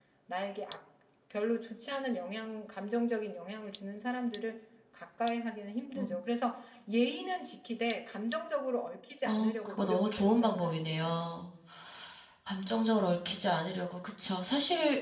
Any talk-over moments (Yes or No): Yes